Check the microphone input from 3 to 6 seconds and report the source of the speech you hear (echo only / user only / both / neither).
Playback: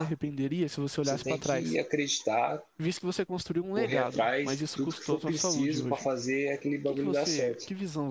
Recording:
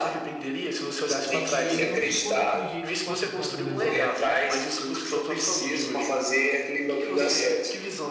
both